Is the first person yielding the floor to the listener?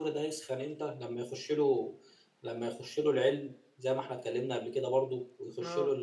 No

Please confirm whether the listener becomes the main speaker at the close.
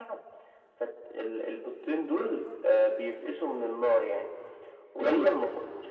No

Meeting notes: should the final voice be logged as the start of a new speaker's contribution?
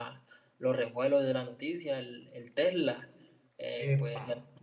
No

